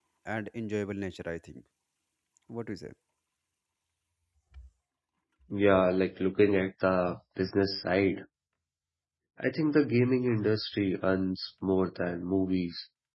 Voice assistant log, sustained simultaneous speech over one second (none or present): none